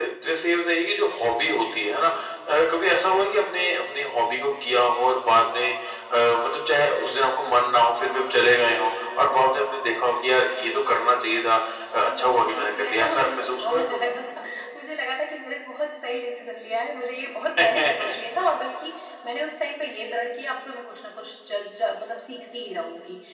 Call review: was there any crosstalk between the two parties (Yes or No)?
Yes